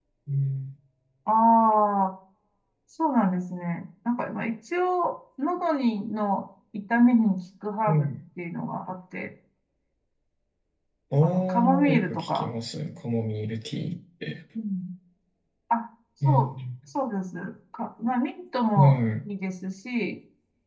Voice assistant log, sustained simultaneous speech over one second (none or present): present